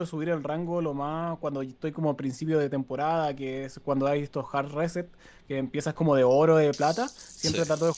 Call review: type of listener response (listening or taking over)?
listening